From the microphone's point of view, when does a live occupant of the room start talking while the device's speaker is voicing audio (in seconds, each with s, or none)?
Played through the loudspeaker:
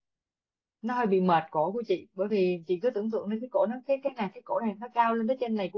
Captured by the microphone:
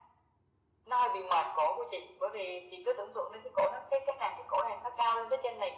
none